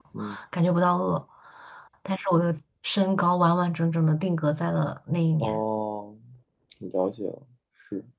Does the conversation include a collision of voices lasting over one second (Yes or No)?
No